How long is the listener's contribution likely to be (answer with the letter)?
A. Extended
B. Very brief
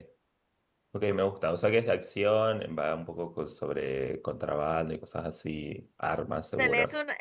A